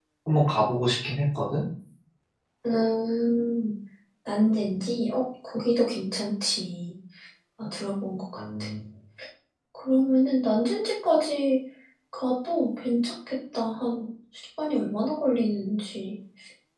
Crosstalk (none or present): none